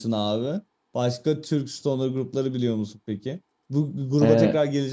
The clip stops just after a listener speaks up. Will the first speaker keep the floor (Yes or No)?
Yes